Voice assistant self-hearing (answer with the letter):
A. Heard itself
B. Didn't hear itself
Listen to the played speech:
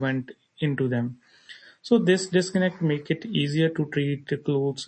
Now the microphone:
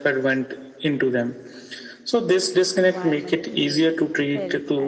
A